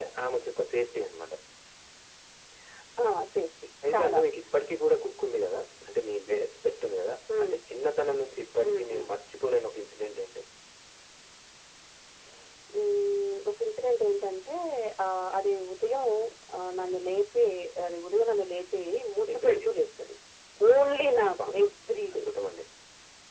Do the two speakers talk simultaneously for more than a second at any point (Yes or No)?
No